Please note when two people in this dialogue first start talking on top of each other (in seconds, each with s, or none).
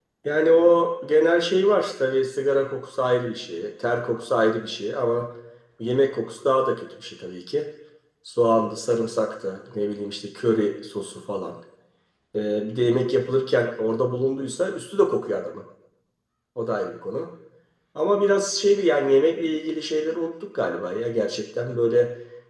none